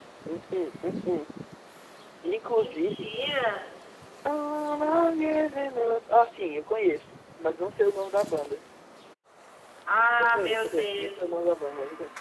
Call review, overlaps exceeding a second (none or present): present